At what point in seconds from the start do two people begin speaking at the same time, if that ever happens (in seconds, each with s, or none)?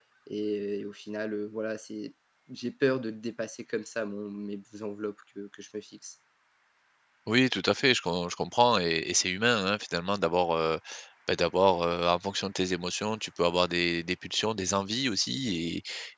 none